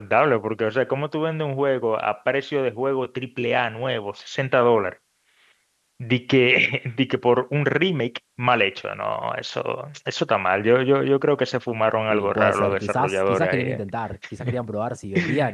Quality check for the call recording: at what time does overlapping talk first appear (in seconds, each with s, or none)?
12.1 s